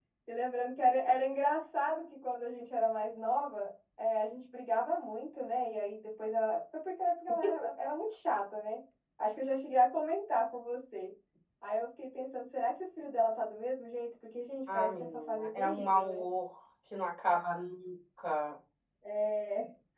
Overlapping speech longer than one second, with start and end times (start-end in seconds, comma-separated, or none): 14.7-16.2